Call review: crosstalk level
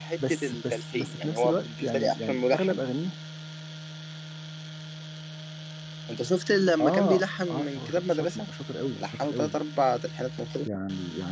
present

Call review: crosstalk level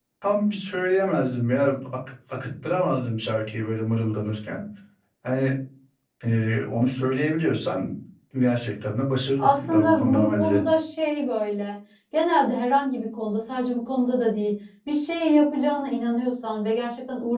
present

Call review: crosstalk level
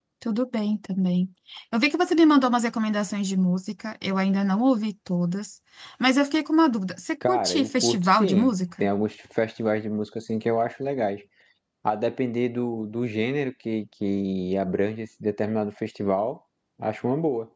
present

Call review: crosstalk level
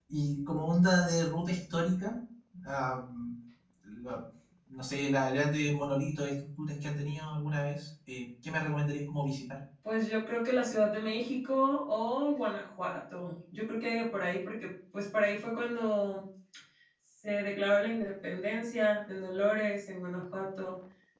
none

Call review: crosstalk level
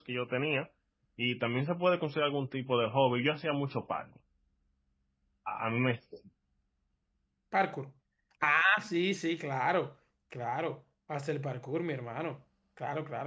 none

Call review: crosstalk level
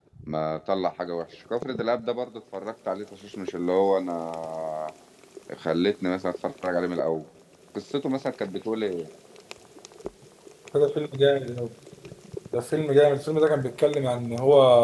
none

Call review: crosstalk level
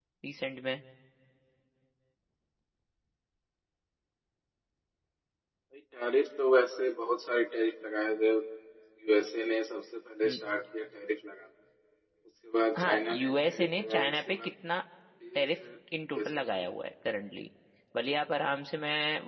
present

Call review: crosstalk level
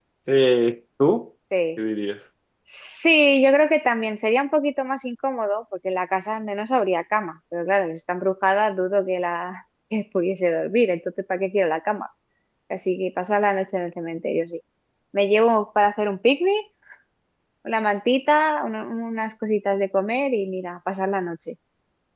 none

